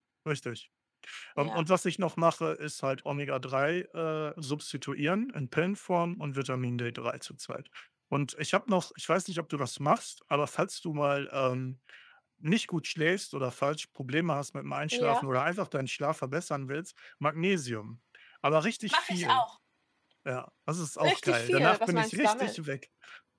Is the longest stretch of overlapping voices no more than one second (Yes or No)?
No